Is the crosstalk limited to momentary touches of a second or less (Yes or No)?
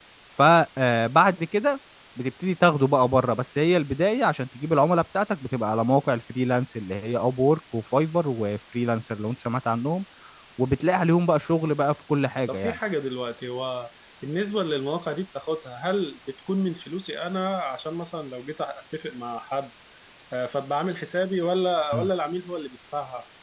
Yes